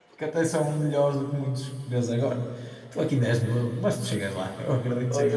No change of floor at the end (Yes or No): No